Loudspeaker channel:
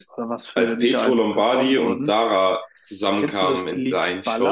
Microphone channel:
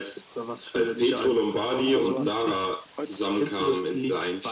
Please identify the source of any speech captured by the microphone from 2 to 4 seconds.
both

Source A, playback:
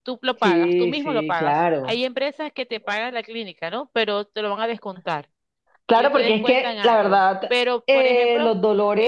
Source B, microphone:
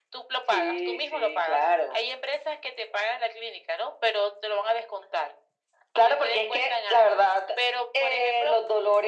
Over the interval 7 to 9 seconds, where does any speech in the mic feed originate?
echo only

